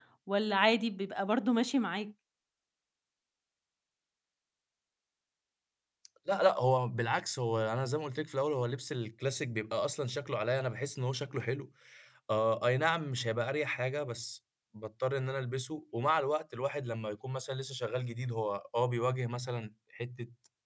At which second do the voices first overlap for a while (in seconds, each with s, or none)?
none